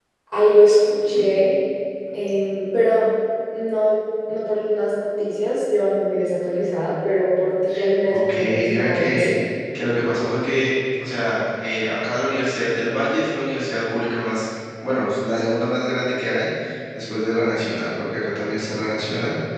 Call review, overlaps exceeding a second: present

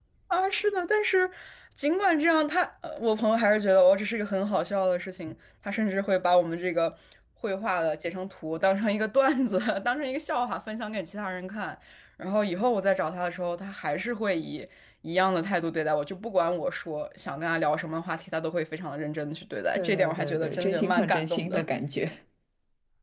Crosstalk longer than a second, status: present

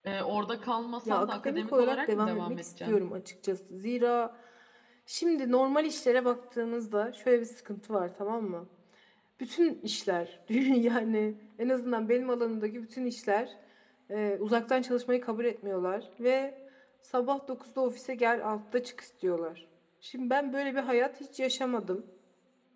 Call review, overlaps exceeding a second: present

